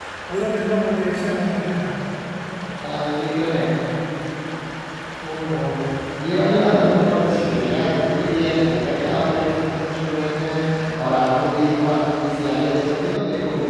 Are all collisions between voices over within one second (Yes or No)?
Yes